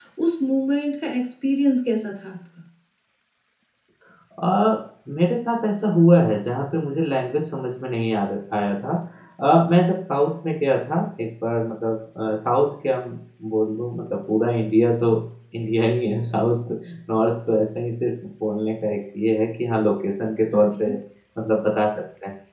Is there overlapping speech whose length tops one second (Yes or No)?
No